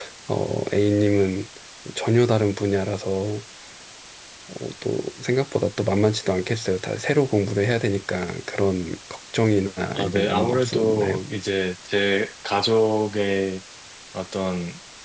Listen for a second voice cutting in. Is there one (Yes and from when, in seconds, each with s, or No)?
Yes, from 9.9 s